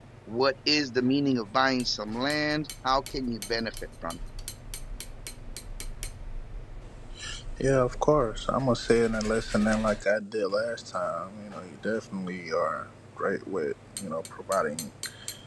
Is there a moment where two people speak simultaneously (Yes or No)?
No